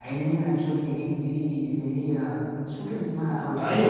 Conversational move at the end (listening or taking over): taking over